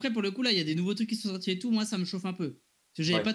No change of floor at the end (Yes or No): Yes